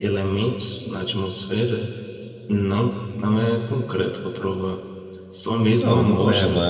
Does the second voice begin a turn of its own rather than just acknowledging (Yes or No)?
Yes